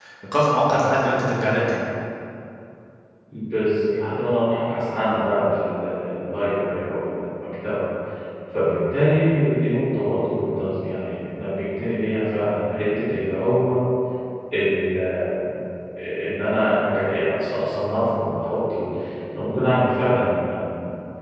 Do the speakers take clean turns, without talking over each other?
Yes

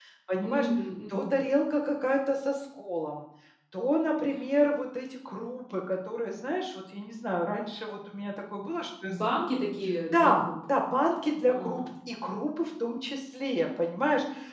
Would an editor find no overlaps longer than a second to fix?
Yes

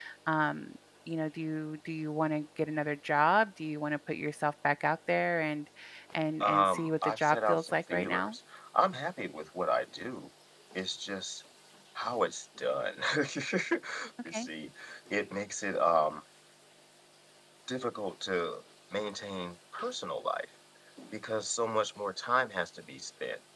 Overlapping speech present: Yes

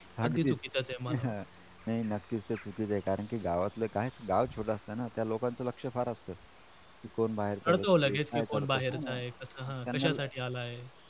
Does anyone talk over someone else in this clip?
Yes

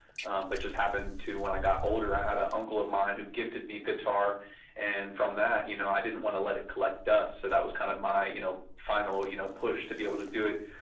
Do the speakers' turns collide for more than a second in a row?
No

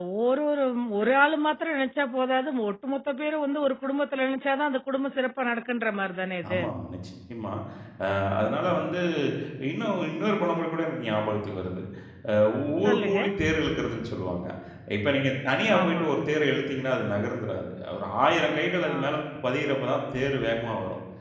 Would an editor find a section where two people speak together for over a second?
No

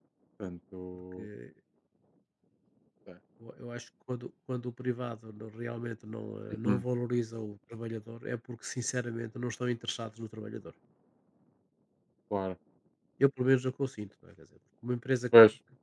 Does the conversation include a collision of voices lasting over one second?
No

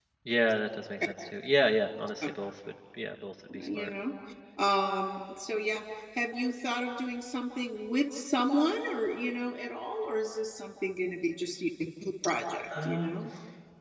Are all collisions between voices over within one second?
Yes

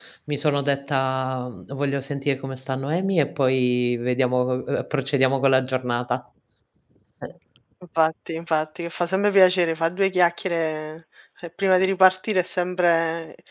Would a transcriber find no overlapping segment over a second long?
Yes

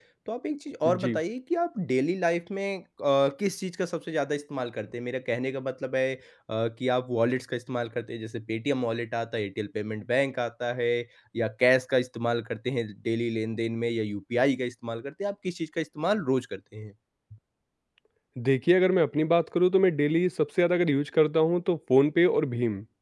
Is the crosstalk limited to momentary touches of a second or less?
Yes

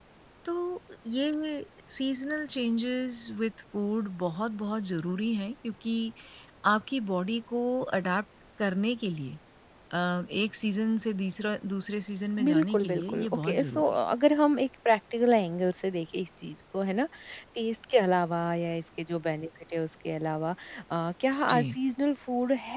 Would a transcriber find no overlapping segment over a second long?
No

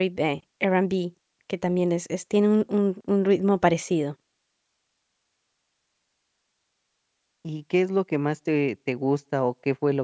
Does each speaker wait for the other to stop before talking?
Yes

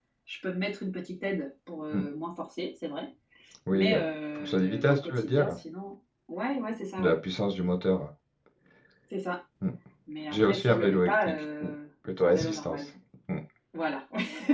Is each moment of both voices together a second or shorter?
No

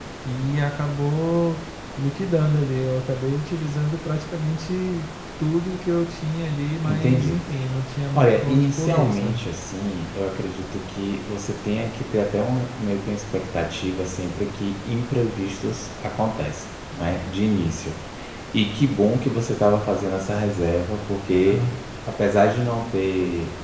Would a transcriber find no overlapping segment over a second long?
No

